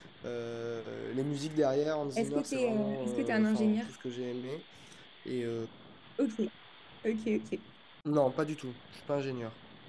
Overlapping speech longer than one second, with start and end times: 2.2-3.8

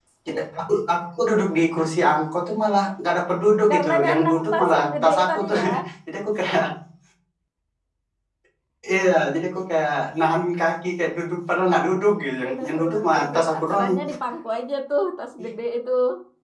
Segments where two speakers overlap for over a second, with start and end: 3.7-5.6, 12.4-13.9

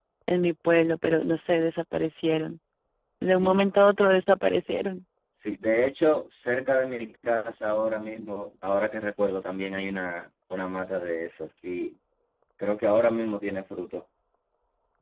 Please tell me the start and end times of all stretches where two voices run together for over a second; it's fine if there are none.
none

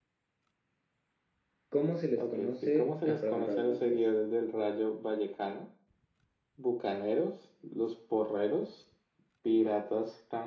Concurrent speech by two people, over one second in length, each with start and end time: 2.2-4.0

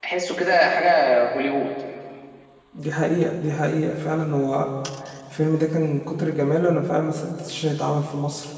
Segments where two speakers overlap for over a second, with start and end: none

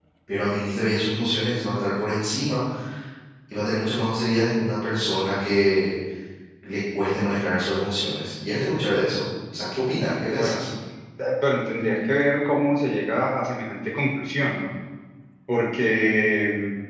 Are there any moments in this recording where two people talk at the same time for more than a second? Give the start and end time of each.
none

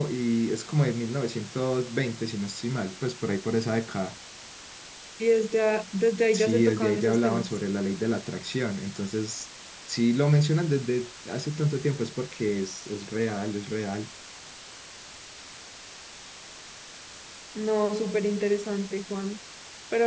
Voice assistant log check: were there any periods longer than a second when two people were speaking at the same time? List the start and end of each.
6.3-7.6

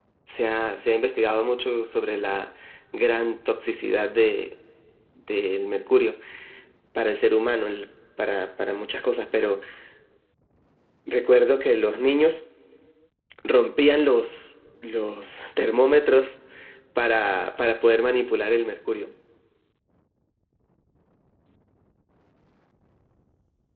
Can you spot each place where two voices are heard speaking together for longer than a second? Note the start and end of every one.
none

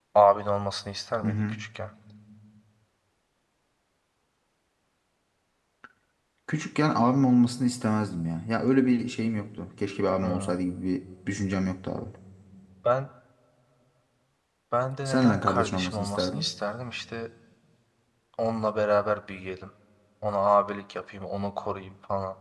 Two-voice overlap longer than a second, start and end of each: 15.0-16.5

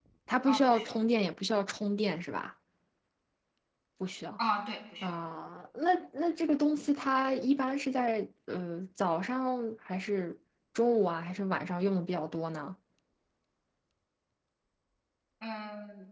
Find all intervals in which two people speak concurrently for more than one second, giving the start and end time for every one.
none

